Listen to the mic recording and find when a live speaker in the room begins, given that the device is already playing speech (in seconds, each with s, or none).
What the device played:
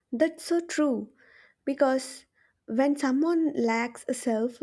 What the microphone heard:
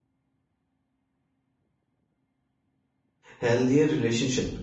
3.4 s